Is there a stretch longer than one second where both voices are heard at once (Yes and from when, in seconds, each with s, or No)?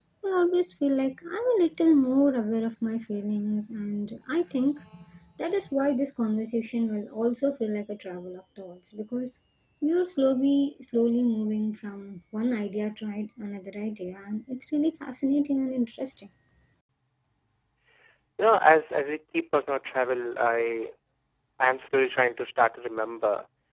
No